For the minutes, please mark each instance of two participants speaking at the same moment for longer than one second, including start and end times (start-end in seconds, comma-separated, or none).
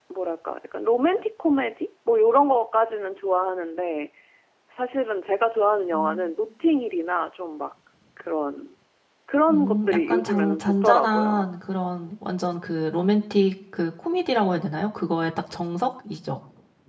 9.5-11.4